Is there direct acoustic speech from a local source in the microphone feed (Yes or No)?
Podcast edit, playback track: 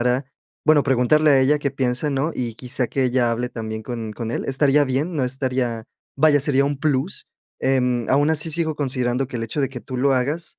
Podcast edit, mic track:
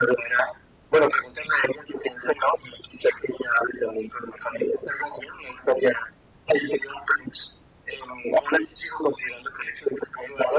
No